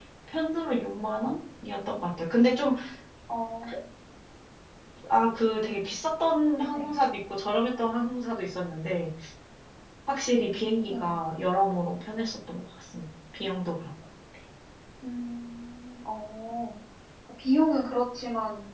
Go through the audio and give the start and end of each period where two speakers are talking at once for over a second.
none

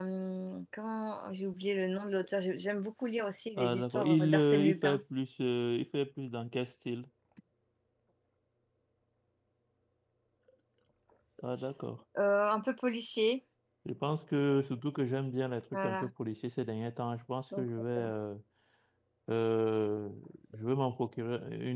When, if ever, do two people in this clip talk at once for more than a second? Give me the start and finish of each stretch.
3.6-5.0

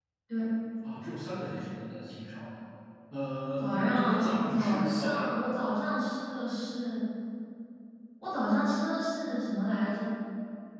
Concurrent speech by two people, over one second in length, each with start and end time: 3.6-5.5

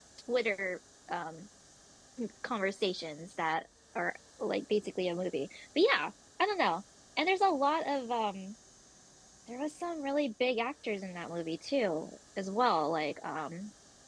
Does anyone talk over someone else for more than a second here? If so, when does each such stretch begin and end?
none

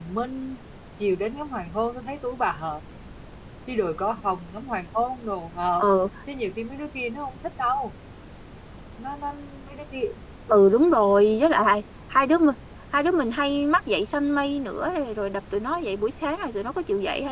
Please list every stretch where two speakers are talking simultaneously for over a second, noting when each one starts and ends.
none

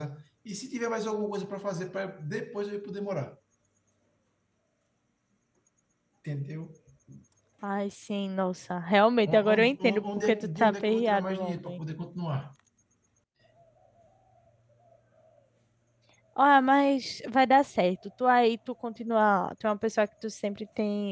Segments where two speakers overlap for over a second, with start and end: 9.2-11.8

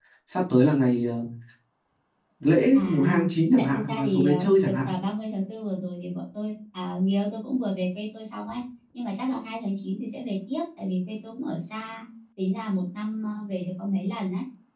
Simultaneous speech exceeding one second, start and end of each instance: 3.6-4.9

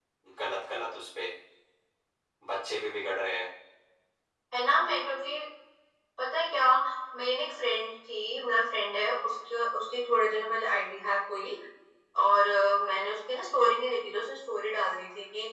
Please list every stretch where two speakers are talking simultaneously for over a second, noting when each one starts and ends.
none

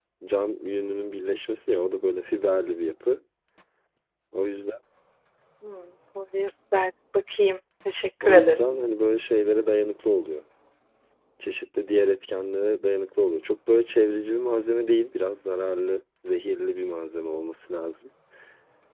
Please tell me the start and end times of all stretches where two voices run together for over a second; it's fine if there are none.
none

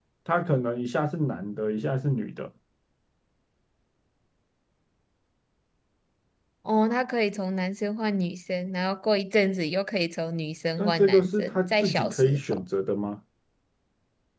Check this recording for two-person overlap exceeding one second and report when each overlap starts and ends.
10.8-12.6

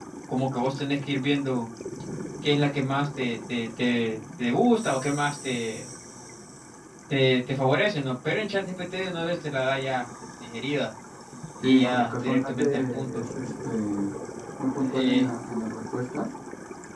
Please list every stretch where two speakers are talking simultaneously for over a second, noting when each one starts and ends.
11.6-13.2

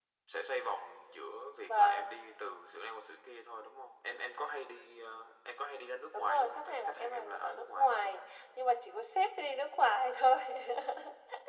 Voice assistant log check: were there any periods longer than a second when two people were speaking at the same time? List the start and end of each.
6.1-8.2

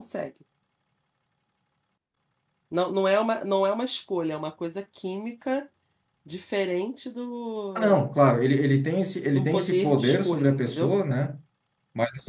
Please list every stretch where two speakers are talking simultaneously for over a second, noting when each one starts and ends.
9.3-10.9

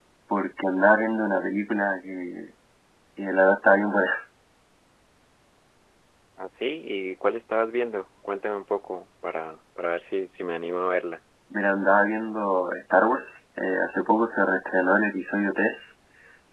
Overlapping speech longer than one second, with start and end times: none

